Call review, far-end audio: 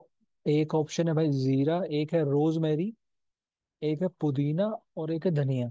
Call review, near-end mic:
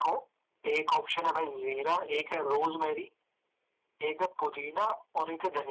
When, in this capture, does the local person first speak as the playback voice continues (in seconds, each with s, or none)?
none